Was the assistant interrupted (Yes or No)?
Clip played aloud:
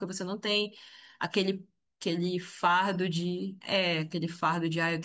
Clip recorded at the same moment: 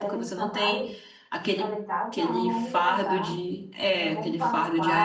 Yes